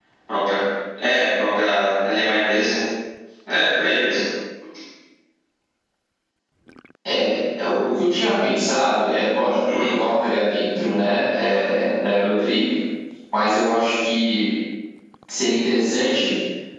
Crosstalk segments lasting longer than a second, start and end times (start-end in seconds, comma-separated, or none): none